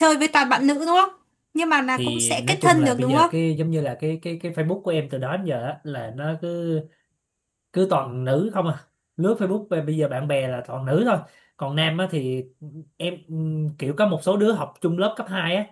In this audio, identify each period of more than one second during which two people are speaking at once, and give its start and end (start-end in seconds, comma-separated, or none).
2.0-3.3